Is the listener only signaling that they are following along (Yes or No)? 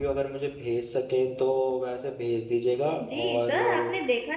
No